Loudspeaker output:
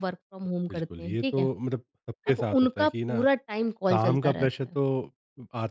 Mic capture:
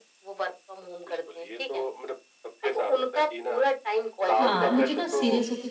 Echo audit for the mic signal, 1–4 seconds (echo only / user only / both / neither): echo only